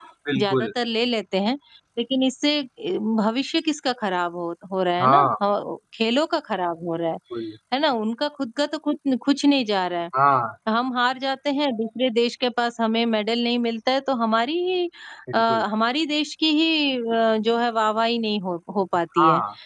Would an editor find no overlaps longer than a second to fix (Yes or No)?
Yes